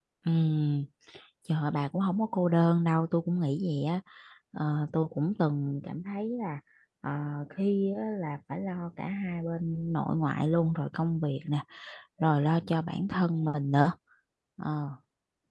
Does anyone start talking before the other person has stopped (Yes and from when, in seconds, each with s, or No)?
No